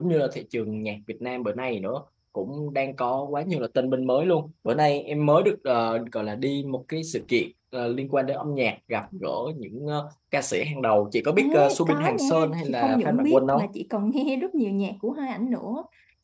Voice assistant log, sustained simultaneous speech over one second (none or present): present